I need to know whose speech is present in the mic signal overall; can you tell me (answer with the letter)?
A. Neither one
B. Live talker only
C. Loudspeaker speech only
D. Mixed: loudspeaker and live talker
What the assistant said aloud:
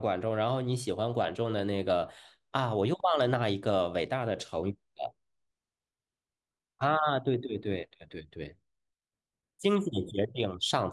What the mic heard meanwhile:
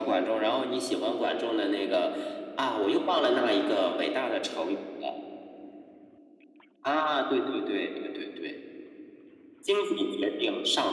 C